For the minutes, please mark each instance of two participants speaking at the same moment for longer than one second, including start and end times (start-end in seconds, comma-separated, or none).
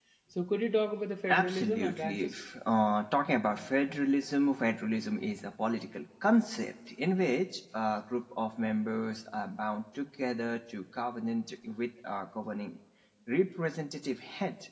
1.3-2.5